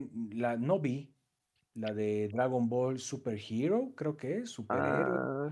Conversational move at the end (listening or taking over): taking over